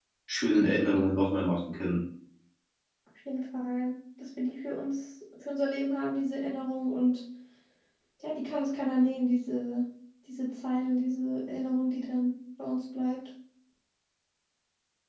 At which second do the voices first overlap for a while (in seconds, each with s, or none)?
none